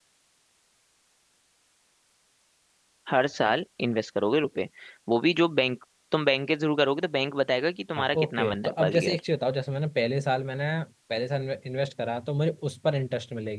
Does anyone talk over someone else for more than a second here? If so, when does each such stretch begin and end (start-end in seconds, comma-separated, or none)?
8.0-9.2